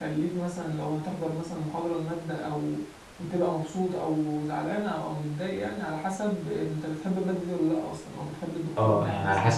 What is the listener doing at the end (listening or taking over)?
taking over